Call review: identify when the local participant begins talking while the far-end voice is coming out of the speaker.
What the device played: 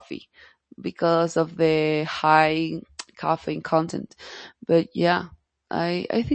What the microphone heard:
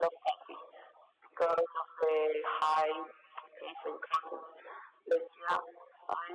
none

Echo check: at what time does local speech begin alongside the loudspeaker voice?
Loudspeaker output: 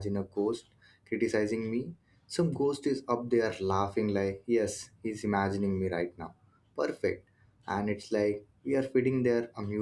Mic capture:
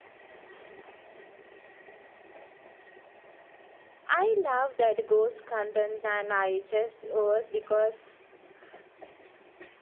4 s

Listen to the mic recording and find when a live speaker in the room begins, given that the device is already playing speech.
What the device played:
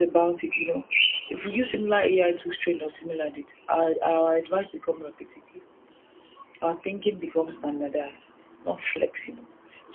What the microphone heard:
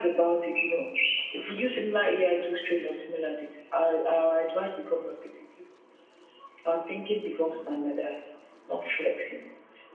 none

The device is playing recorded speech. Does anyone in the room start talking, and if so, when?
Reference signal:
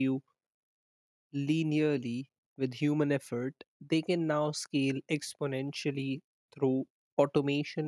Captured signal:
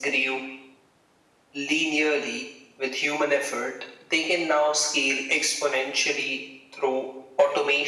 none

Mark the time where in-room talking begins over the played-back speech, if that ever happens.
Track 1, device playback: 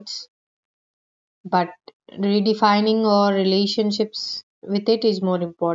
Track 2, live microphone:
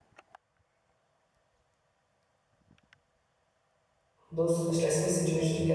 4 s

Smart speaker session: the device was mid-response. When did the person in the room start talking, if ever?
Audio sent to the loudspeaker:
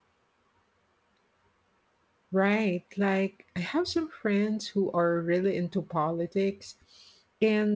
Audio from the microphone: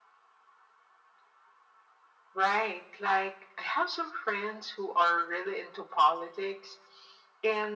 none

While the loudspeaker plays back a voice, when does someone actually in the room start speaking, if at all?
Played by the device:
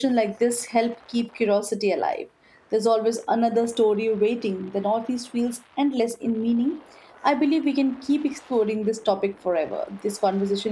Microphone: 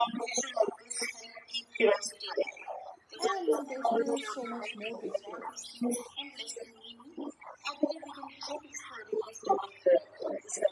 3 s

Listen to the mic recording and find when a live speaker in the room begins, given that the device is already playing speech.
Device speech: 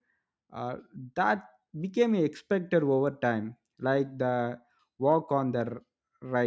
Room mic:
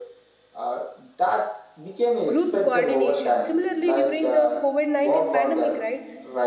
2 s

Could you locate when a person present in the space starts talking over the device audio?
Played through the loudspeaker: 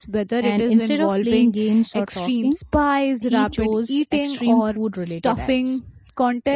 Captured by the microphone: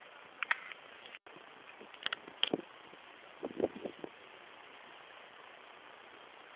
none

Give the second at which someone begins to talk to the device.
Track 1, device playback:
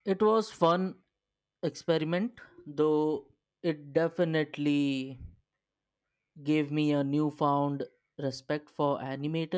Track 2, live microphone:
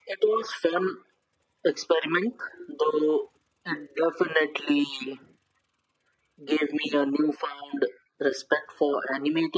none

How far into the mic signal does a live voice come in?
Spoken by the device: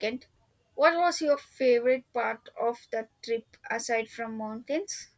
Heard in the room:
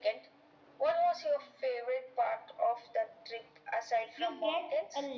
4 s

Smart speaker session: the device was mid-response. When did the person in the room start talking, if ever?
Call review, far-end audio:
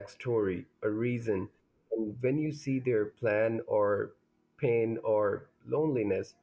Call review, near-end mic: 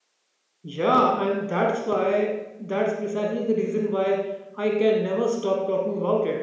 1 s

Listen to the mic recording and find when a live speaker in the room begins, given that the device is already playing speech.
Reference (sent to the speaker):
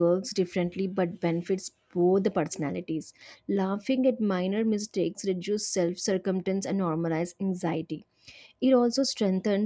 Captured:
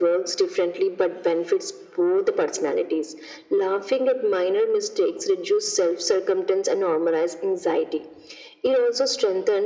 none

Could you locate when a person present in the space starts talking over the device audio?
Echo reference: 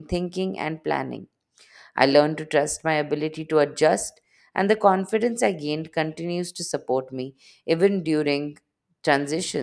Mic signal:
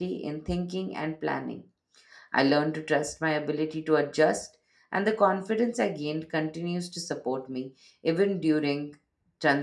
none

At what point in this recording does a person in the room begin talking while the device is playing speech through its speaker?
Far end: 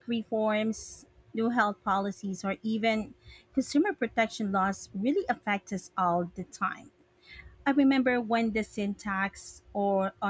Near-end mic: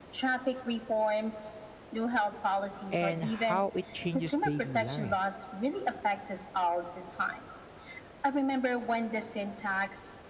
3 s

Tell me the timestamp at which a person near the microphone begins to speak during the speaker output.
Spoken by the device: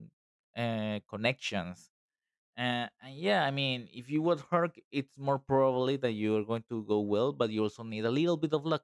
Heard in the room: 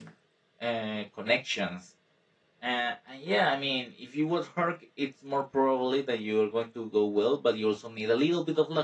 none

